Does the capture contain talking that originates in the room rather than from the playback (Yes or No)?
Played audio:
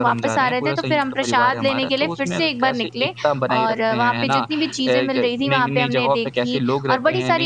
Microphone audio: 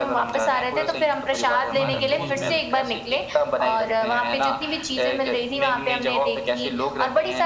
Yes